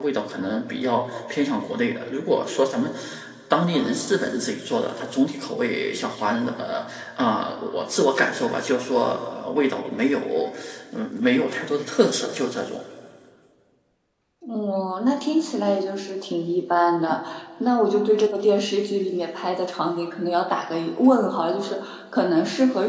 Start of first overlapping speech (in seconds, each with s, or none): none